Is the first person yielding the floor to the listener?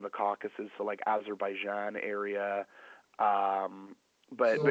Yes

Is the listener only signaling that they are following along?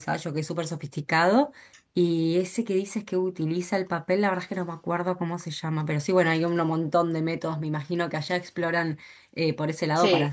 Yes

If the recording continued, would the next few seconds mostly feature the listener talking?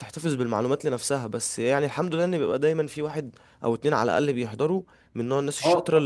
Yes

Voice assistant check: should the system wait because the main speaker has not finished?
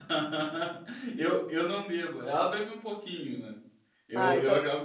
Yes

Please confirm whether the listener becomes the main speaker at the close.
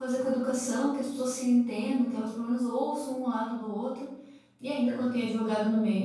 No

